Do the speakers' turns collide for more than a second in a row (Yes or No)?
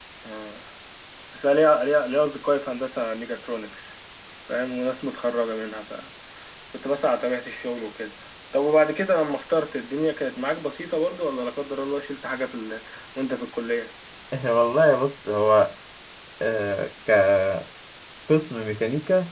No